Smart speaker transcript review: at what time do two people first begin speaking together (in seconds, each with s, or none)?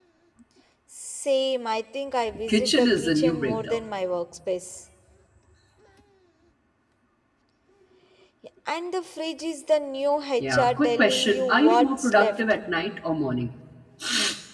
2.3 s